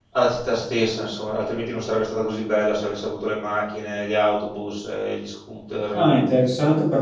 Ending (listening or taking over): taking over